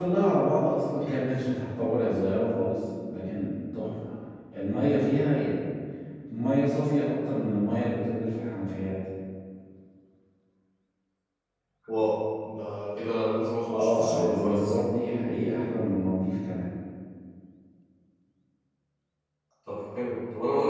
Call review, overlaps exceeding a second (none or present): present